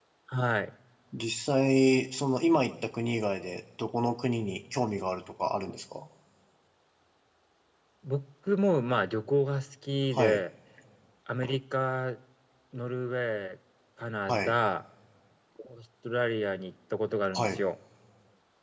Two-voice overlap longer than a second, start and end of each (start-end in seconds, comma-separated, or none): none